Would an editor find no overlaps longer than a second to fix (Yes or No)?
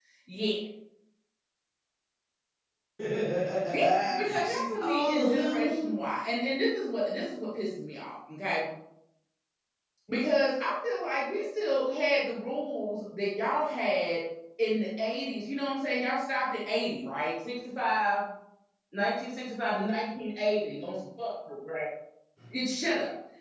No